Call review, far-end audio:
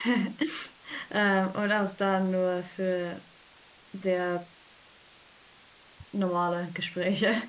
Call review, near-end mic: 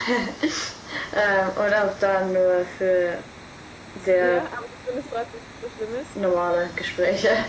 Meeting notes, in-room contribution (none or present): present